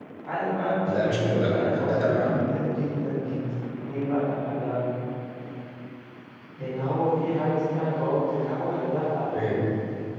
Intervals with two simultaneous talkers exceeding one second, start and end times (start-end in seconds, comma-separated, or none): 0.9-2.4